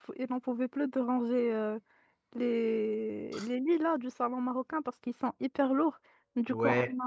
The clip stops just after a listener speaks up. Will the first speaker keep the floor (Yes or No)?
Yes